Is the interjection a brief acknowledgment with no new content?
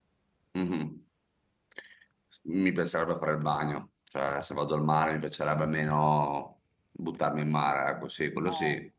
No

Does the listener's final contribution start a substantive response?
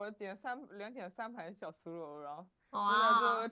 No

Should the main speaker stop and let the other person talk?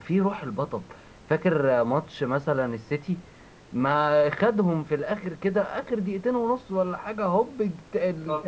No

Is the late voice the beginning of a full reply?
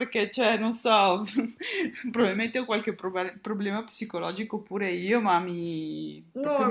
Yes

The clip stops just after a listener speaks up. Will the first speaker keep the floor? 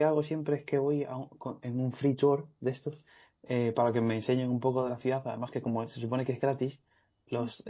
Yes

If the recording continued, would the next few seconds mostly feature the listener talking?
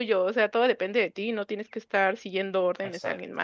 Yes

